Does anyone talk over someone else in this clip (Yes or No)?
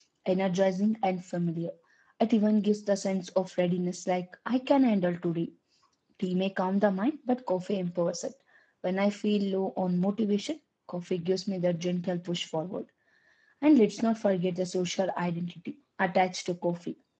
No